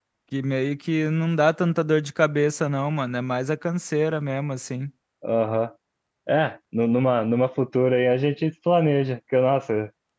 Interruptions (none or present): none